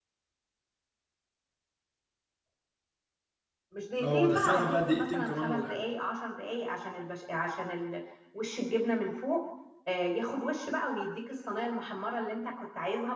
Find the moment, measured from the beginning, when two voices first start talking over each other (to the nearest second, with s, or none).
4 s